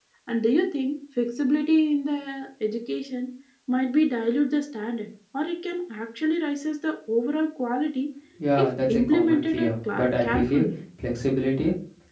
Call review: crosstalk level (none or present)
present